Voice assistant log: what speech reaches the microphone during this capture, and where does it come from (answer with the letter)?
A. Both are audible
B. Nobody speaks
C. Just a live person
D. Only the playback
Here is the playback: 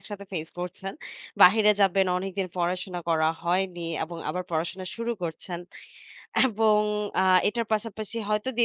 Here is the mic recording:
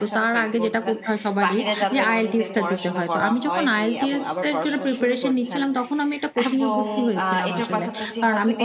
A